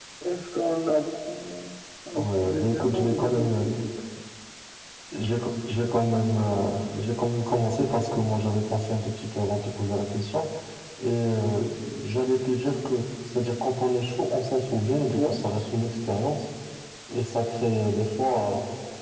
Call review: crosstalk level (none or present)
present